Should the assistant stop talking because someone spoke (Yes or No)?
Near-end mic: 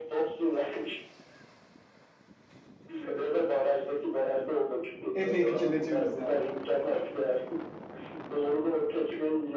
Yes